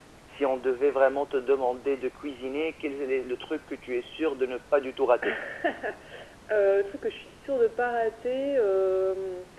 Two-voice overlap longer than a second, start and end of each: none

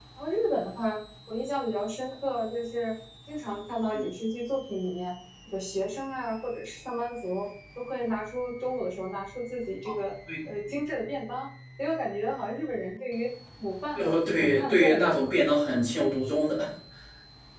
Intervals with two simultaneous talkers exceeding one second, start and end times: 13.9-15.2

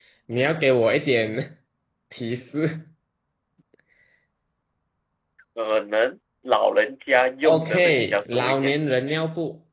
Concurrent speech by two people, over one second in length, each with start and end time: 7.4-8.7

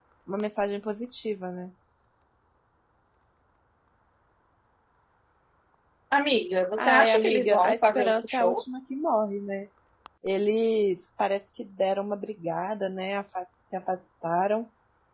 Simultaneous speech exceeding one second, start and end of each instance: 6.8-8.6

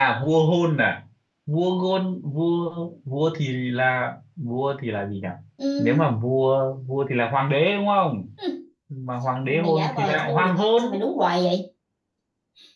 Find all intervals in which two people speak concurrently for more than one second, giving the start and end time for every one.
9.5-10.8

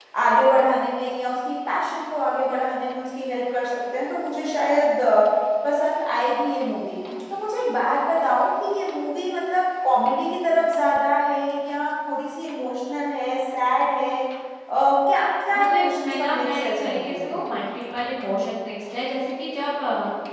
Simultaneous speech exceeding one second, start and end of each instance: 15.6-17.3

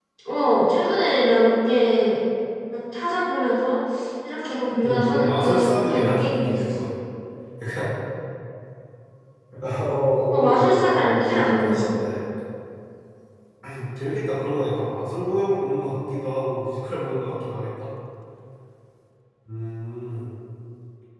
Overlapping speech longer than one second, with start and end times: 4.8-6.7, 10.3-11.9

